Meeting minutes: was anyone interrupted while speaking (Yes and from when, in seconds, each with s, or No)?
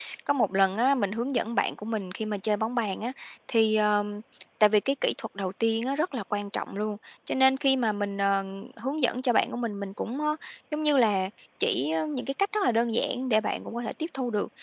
No